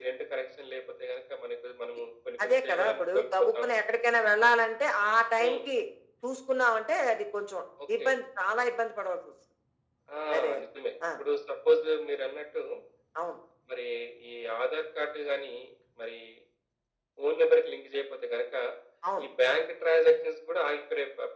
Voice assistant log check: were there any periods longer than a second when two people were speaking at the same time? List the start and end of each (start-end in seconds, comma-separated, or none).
2.4-3.8